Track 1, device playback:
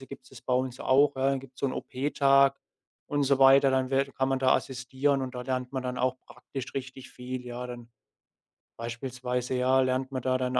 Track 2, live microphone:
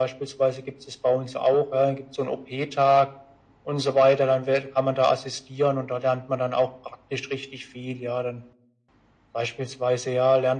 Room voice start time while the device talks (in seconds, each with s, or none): none